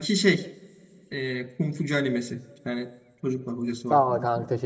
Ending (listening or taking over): taking over